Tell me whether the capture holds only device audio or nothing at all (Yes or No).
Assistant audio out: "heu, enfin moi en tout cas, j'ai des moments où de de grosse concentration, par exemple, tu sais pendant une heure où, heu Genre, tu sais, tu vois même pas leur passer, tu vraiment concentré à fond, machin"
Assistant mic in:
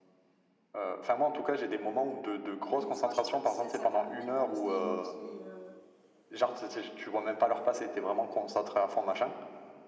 No